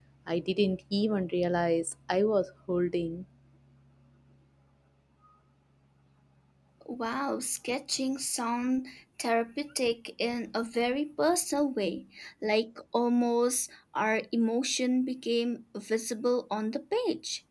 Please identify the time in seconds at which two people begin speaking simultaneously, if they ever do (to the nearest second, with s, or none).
none